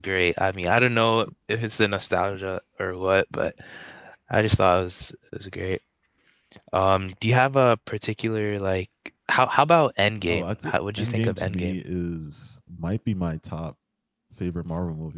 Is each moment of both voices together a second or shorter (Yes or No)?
No